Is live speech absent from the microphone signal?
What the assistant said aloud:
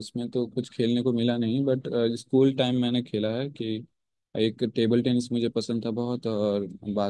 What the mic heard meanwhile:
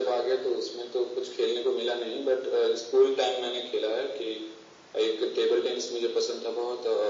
Yes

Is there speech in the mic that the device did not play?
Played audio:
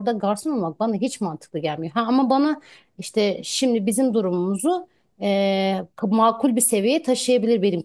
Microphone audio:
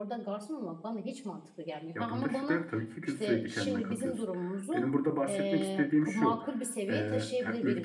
Yes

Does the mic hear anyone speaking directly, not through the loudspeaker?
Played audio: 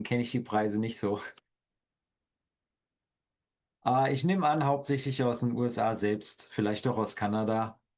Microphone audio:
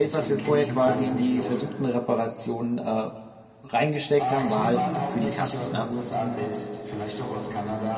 Yes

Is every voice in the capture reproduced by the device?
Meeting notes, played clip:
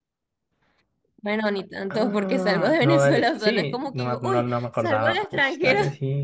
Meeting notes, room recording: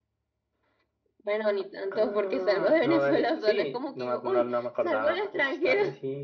Yes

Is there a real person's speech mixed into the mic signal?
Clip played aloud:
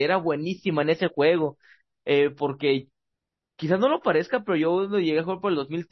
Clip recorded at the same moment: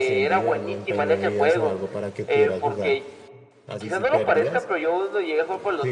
Yes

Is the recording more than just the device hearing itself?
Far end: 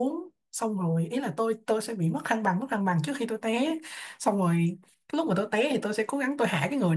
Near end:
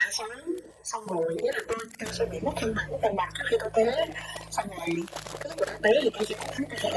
No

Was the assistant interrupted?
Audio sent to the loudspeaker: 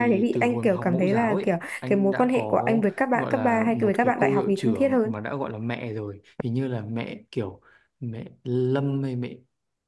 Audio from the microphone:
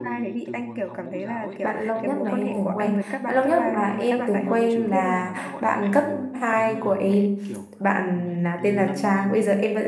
Yes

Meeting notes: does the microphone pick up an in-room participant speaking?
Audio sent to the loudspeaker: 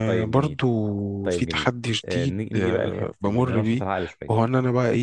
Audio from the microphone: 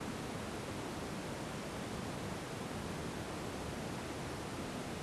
No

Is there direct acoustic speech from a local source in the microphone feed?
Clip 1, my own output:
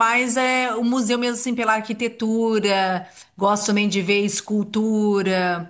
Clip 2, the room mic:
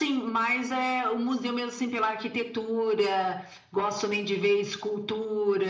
No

